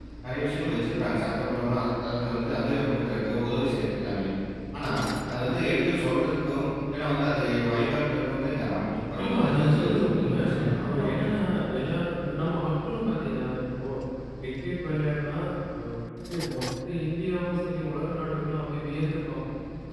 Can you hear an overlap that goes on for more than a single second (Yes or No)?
Yes